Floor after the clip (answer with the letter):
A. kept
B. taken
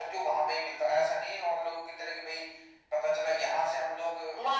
B